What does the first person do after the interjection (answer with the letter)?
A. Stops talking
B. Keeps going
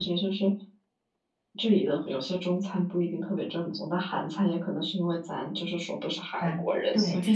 A